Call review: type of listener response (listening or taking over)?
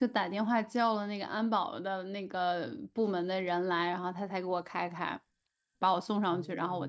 listening